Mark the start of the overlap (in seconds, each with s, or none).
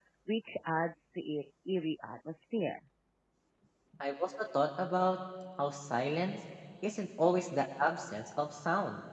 none